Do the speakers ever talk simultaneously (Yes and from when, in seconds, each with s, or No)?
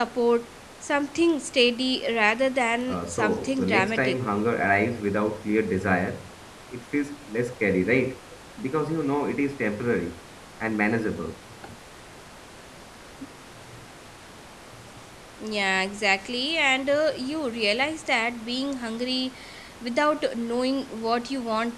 Yes, from 2.9 s